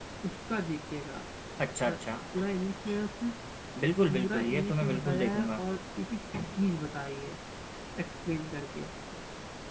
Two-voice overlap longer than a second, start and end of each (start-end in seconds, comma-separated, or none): 4.1-5.6